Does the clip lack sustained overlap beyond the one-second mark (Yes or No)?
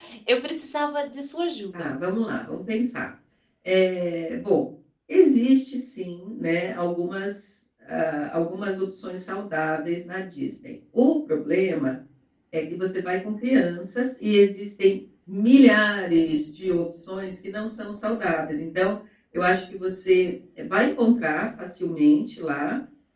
Yes